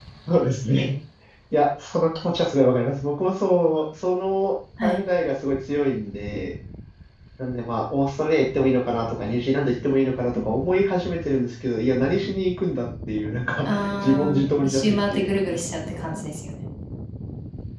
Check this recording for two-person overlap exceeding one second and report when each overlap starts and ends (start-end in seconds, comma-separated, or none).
14.0-15.3